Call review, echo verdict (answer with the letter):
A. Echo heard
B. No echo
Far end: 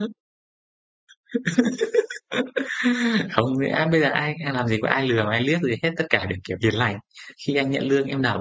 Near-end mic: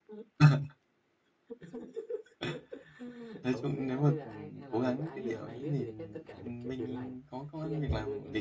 A